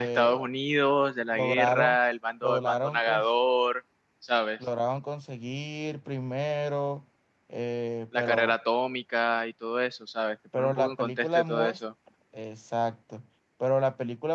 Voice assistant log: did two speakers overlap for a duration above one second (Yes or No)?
Yes